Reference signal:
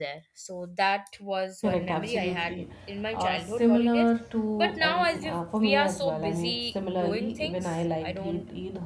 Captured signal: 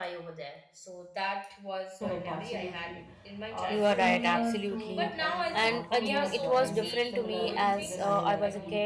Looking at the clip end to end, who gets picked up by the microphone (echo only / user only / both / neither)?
both